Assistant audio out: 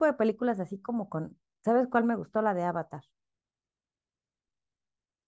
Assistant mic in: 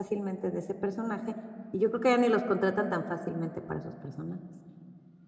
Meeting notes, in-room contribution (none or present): present